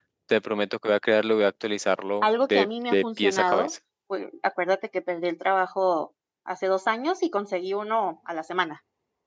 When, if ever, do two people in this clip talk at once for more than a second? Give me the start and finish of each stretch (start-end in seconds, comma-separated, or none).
2.5-3.7